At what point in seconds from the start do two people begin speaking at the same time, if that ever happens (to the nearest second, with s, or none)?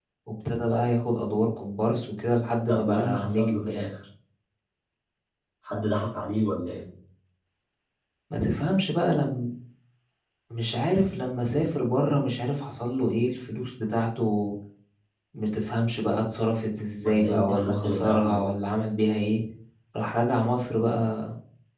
3 s